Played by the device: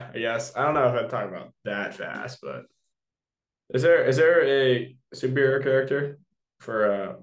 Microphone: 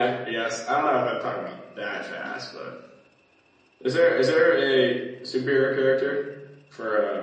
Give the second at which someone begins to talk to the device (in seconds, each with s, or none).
4.6 s